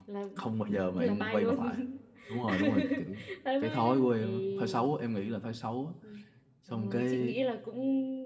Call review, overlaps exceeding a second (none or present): present